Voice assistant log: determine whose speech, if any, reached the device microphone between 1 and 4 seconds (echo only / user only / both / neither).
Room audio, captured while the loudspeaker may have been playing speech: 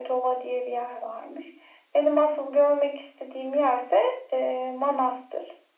echo only